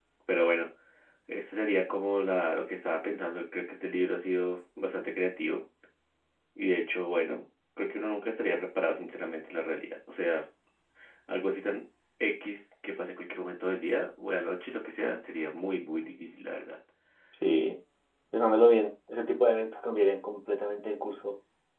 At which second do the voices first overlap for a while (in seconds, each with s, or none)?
none